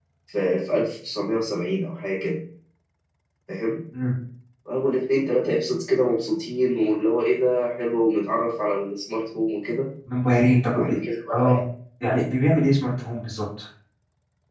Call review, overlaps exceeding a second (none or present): none